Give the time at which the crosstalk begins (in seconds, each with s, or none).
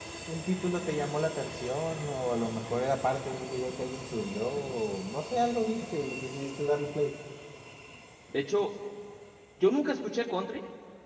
none